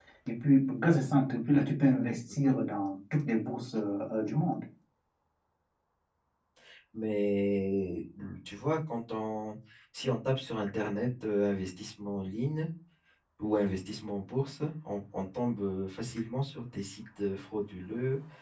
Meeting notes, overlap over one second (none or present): none